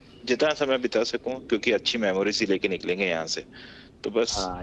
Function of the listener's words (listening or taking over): taking over